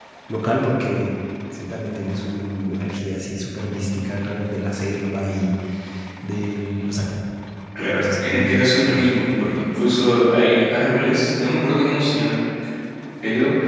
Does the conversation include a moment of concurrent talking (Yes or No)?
Yes